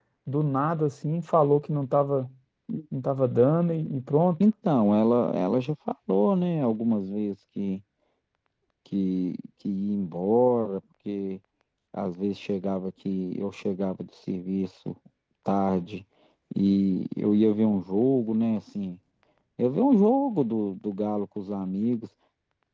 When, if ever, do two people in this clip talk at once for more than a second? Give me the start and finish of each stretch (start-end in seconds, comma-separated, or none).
none